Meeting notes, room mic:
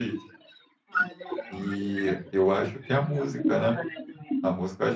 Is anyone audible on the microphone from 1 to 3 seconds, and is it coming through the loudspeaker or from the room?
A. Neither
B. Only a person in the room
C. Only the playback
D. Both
D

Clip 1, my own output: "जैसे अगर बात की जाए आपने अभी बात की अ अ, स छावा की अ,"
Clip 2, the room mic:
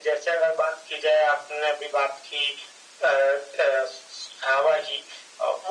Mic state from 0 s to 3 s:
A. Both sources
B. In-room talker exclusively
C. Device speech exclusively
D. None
C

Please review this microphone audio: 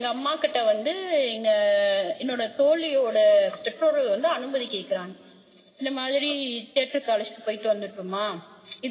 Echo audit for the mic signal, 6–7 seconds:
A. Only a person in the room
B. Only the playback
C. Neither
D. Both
B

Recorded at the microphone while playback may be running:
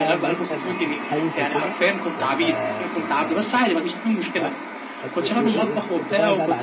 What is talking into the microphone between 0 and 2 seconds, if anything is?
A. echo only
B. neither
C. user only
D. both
D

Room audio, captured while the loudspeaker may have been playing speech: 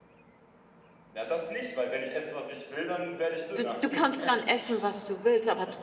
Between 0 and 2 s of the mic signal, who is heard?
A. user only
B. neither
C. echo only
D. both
C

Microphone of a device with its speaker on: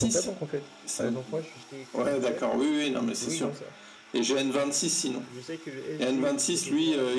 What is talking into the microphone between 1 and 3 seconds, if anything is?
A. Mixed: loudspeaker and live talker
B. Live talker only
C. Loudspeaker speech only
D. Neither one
A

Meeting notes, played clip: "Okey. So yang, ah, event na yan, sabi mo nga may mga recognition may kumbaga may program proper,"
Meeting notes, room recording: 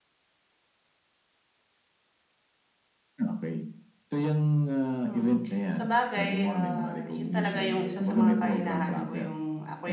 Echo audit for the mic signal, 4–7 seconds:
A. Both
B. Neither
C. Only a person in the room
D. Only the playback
A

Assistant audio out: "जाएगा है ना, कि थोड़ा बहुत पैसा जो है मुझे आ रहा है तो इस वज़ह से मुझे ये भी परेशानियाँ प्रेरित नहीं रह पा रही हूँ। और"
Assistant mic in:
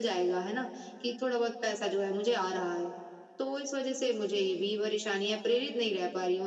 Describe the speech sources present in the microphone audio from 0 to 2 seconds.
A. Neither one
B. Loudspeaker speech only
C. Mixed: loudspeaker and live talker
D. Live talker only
B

